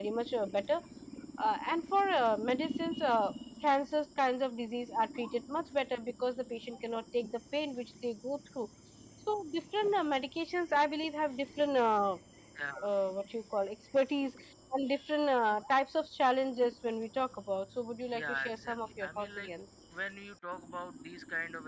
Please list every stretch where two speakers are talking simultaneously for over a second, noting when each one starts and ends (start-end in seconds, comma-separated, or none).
18.1-19.5